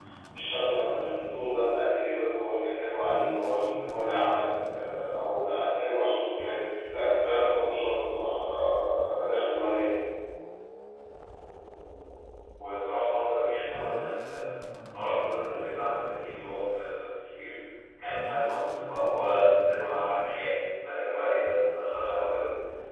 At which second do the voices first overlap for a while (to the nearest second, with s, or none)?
none